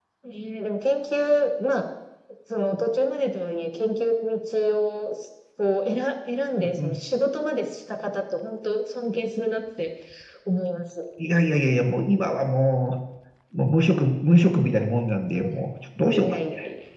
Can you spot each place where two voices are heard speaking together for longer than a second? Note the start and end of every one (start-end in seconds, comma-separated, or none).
none